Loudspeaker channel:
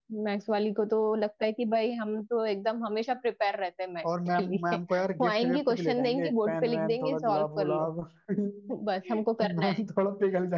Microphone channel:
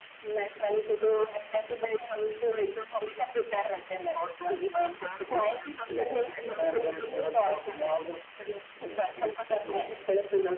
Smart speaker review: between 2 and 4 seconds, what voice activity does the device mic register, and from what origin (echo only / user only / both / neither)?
echo only